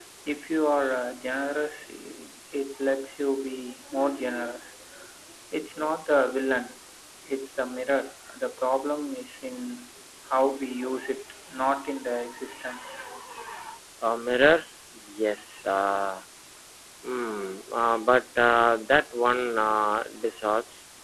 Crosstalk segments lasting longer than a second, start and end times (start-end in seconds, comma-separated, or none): none